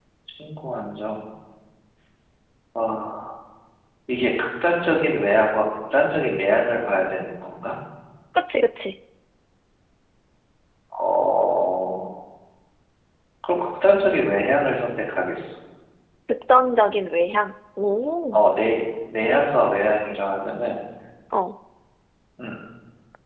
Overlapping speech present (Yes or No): No